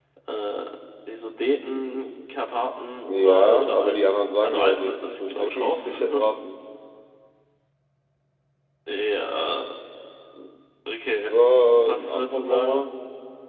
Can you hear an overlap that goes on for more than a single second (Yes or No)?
Yes